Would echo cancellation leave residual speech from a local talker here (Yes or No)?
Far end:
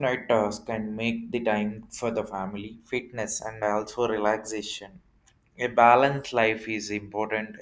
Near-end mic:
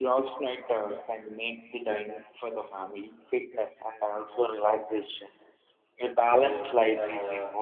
Yes